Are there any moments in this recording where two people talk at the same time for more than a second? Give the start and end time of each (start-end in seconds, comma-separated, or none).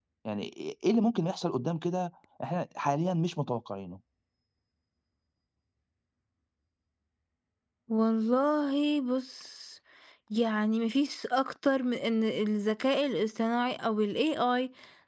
none